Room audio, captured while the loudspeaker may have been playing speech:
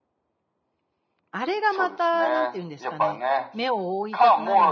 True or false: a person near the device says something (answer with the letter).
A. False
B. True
B